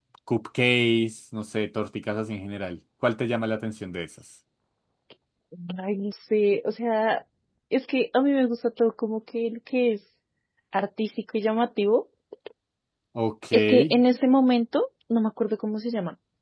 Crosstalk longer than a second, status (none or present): none